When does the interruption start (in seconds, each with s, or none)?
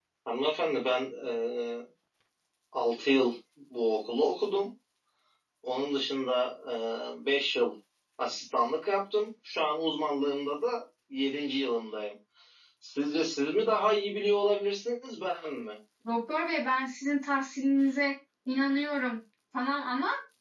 none